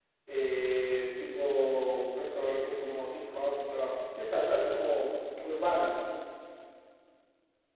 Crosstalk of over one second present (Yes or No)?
No